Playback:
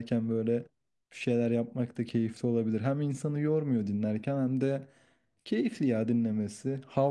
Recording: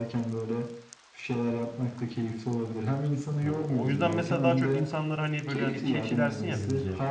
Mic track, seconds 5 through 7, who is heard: both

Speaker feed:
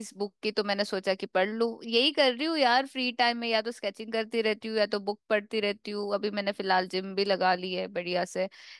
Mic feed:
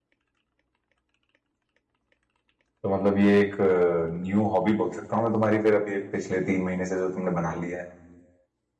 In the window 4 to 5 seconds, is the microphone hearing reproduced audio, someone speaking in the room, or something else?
user only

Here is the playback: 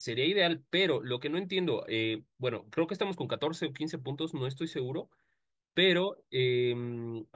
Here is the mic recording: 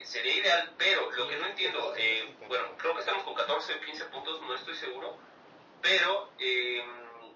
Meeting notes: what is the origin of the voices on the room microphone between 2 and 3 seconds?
both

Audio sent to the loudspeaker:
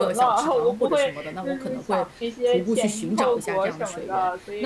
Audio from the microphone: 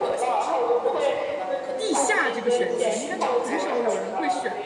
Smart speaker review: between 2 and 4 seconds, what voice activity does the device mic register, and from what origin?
both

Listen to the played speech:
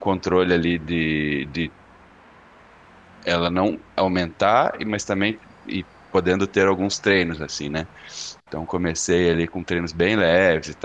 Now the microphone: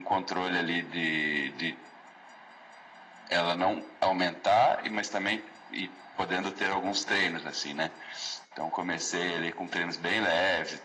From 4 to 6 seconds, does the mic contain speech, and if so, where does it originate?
echo only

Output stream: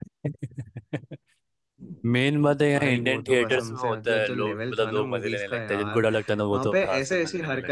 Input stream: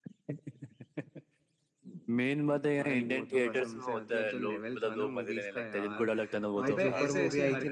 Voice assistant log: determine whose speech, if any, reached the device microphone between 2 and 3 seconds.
echo only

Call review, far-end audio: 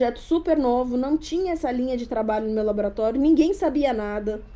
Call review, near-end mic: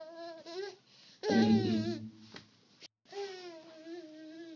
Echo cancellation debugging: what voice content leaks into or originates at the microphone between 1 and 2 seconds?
user only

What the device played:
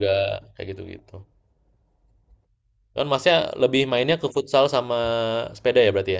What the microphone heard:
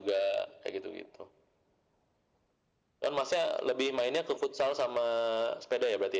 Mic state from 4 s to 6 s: echo only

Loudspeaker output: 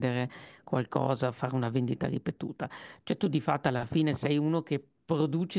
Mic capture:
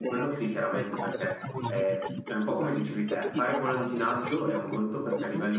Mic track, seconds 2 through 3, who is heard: both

